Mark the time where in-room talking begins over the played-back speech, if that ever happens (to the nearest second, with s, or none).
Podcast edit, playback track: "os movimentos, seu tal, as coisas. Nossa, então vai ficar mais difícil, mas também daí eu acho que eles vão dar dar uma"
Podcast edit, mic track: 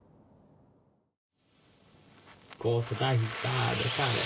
3 s